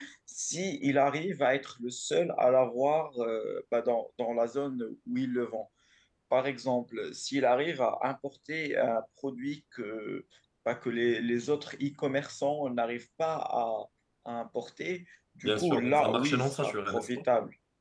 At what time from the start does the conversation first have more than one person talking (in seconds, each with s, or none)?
15.4 s